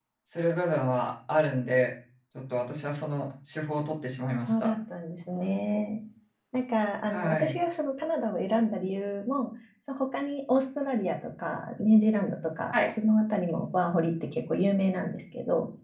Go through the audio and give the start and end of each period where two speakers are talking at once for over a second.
none

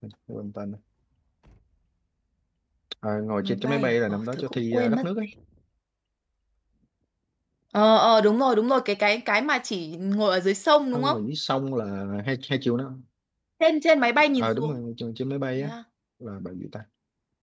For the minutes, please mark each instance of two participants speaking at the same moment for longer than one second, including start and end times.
3.4-5.0

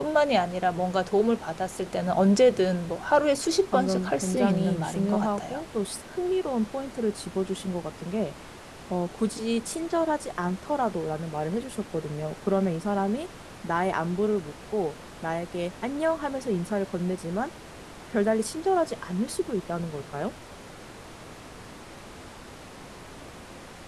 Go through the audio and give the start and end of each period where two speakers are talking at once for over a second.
3.7-5.6

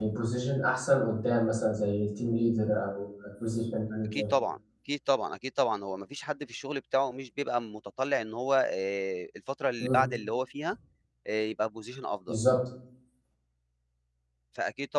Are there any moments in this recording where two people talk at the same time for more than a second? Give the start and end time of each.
none

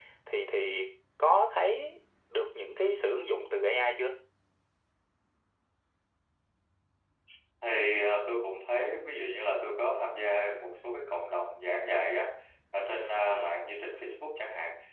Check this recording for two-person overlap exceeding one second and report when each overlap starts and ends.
none

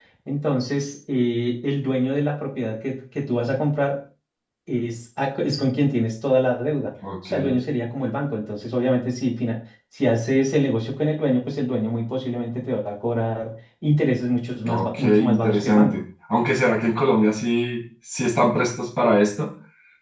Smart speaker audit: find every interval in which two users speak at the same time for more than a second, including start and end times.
14.7-16.0

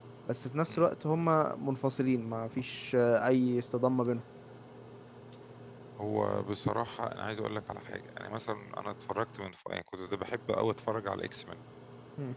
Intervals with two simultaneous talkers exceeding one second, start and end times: none

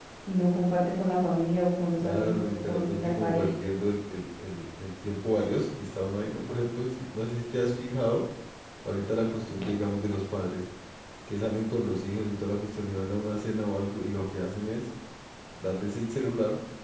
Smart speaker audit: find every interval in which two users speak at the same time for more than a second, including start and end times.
2.0-3.5

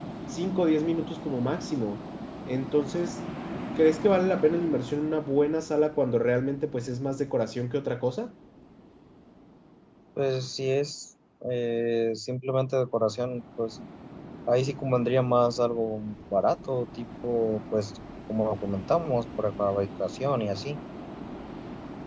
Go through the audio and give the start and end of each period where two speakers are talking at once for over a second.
none

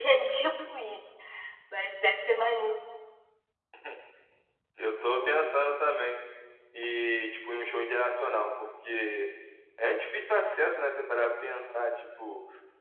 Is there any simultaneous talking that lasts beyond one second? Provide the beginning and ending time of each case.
none

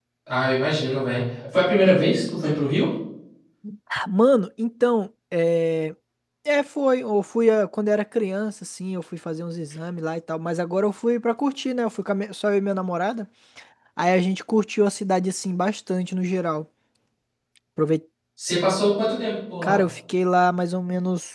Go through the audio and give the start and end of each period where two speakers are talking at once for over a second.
none

